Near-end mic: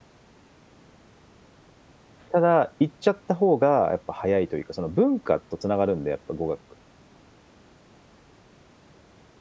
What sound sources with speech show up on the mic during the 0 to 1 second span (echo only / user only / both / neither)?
neither